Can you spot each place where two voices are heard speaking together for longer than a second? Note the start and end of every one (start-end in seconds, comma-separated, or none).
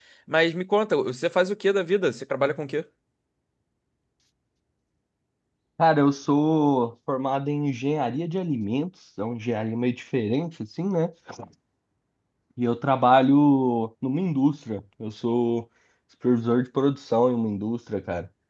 none